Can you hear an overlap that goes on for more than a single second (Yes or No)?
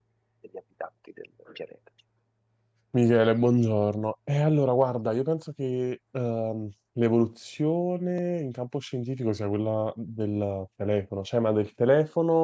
No